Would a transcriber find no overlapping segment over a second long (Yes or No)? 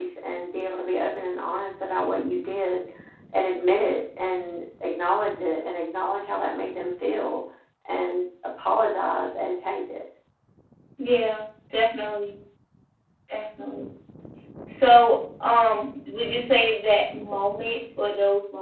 Yes